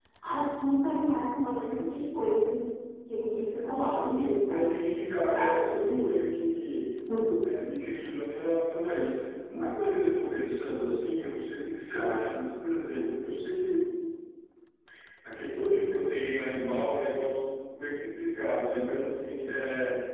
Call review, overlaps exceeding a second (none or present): present